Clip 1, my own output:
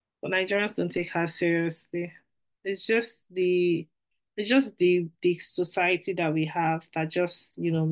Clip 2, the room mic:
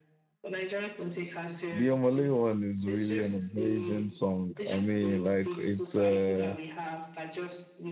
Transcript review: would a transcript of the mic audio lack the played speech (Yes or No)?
No